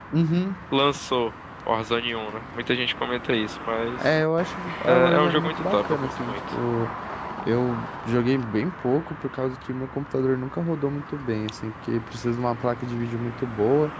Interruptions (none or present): present